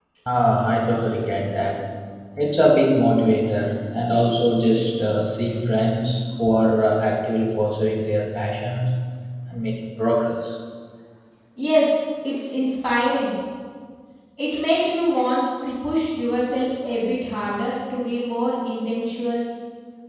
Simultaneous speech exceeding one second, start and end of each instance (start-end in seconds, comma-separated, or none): none